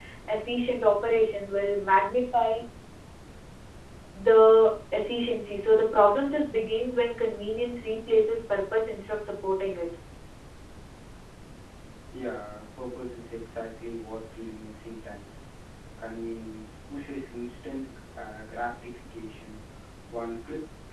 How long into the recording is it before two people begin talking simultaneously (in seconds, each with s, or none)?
none